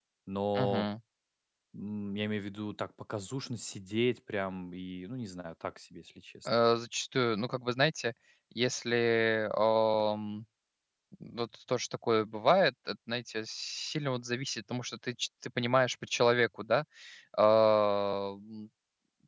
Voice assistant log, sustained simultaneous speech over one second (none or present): none